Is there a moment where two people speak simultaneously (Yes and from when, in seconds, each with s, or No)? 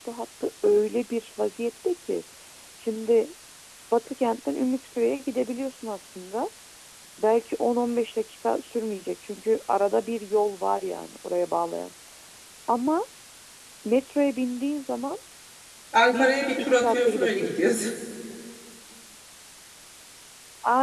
Yes, from 16.1 s